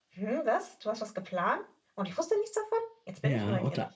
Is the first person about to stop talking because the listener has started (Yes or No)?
Yes